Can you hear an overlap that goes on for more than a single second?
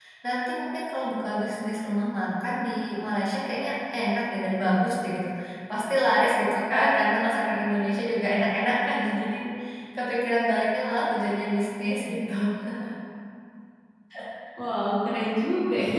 No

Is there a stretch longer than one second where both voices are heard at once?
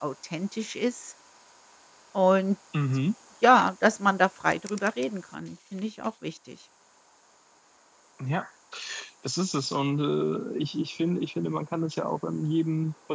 No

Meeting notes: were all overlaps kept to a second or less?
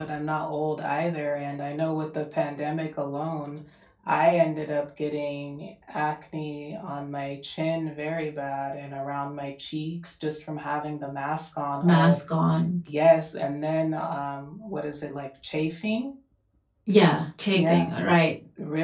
Yes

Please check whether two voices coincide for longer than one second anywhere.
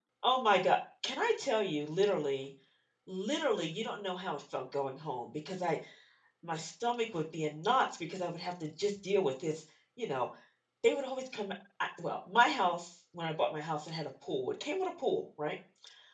No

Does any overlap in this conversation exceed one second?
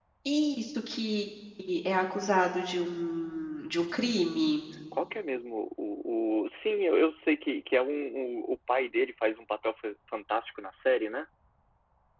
No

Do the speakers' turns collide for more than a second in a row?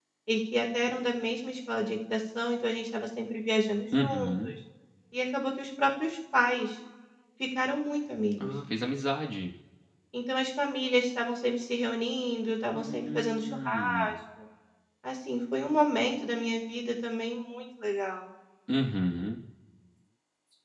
Yes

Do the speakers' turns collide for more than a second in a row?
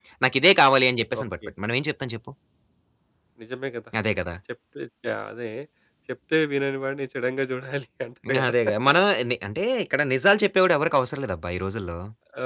No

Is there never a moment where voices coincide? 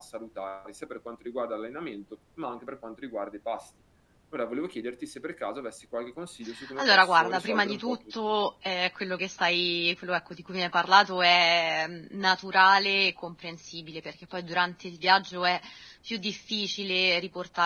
No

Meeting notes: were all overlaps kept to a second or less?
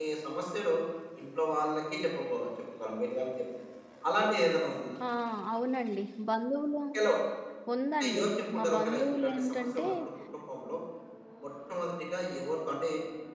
No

